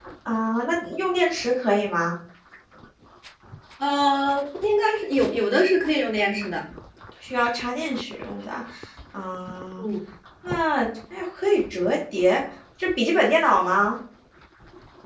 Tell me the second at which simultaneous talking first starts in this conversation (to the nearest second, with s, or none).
none